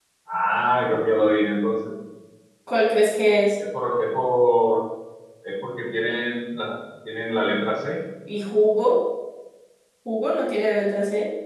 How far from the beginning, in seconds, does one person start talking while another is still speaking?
none

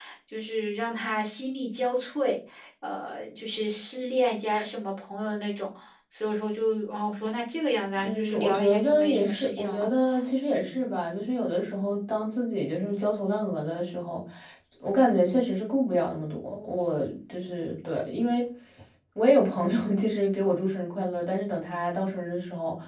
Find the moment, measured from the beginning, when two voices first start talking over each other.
8.0 s

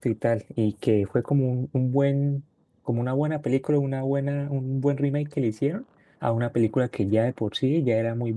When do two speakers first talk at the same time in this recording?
none

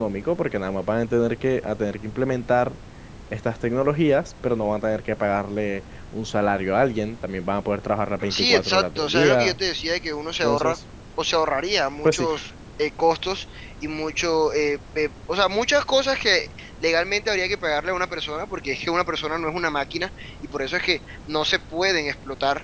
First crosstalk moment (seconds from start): 8.3 s

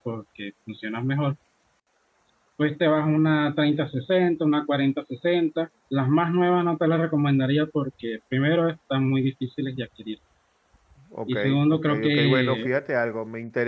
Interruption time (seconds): 11.3 s

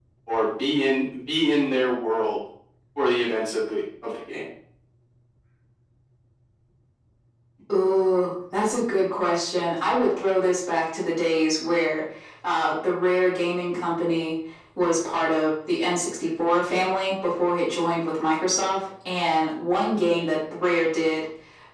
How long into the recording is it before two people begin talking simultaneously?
none

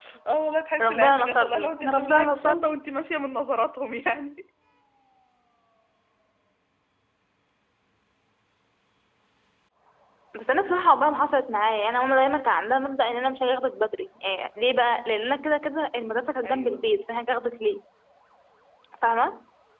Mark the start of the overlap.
0.8 s

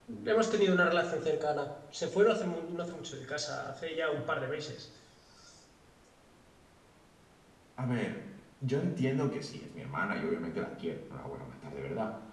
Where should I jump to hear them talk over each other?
none

